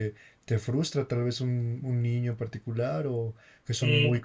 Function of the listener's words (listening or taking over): taking over